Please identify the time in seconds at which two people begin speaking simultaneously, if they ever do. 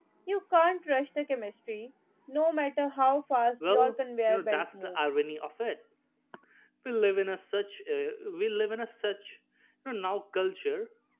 4 s

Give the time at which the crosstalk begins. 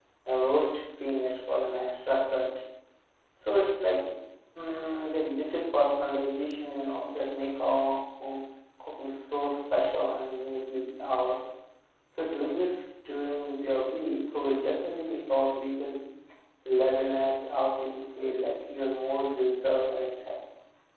none

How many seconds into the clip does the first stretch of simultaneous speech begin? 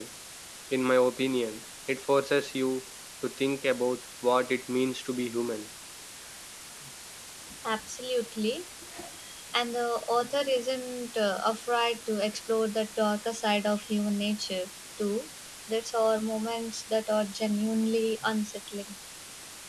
none

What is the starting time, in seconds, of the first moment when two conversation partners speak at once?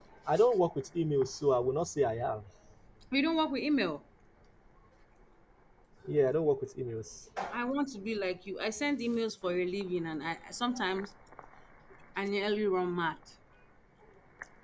none

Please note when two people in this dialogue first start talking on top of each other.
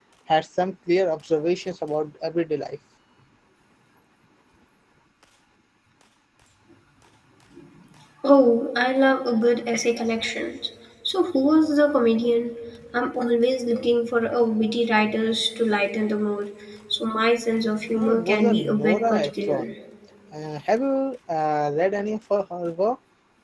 18 s

